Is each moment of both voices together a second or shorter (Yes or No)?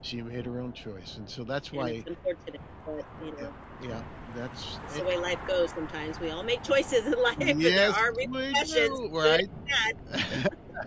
No